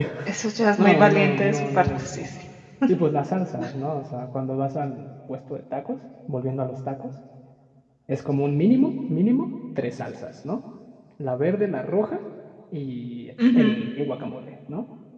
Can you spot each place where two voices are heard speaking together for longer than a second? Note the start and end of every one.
0.8-2.2

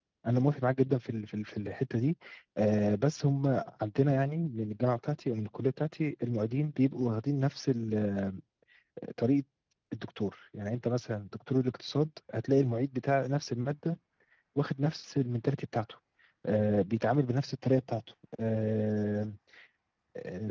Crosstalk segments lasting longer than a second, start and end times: none

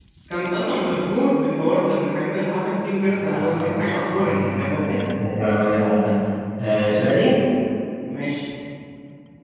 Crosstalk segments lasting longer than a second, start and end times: 3.1-5.0

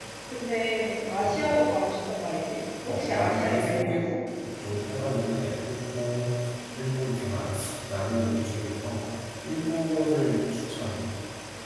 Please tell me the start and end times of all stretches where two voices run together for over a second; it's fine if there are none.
2.9-4.1

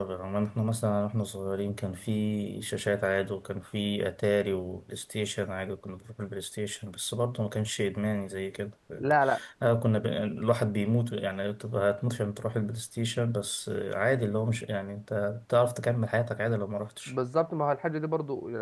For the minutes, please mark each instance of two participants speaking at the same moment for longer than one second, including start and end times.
none

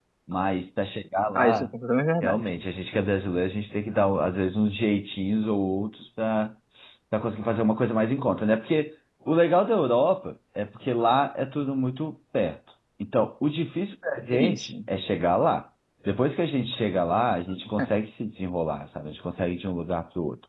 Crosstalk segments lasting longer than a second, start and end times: none

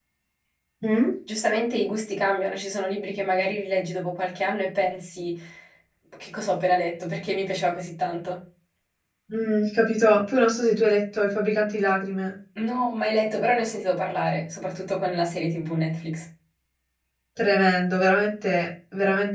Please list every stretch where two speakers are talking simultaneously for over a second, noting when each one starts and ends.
none

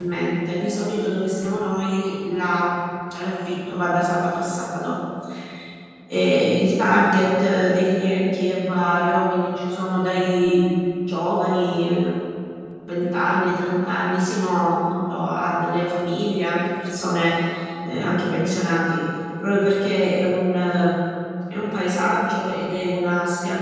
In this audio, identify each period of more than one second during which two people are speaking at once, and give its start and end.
none

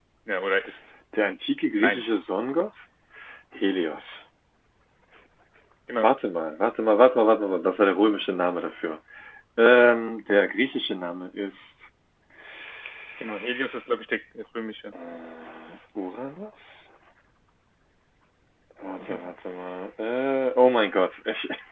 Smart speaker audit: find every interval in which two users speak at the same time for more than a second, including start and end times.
none

